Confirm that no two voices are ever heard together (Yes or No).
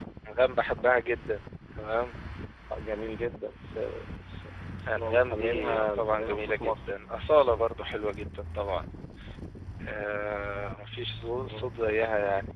No